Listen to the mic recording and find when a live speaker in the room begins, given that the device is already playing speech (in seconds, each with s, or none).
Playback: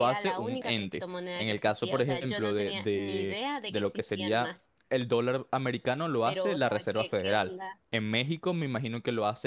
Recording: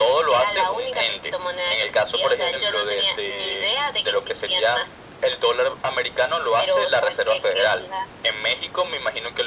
none